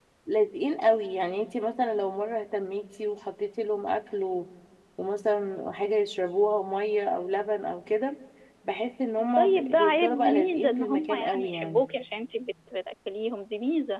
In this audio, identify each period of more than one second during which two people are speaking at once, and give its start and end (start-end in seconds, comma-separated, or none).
9.4-11.8